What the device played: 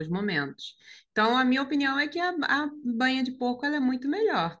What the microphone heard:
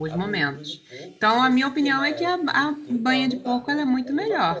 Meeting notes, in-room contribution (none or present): present